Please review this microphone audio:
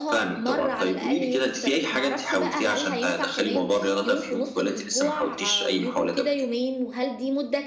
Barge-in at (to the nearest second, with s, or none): none